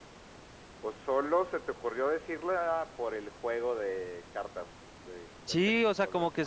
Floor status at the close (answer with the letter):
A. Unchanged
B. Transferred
B